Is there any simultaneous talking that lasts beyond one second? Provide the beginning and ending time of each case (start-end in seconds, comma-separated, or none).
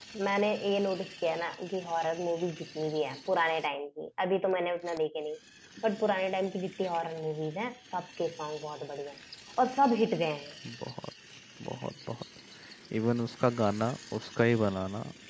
none